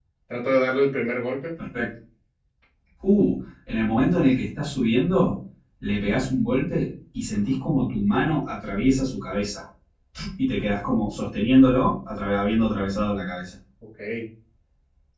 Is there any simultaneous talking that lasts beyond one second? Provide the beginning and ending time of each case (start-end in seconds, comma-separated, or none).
none